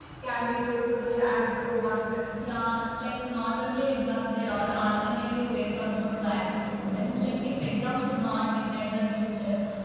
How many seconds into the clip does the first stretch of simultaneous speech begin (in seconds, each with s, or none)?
none